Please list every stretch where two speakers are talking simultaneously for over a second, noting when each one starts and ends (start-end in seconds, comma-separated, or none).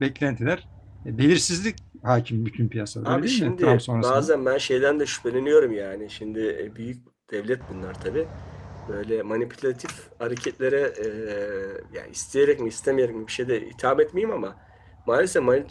3.0-4.3